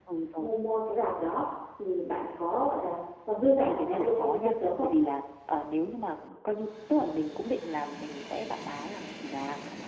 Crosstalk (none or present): present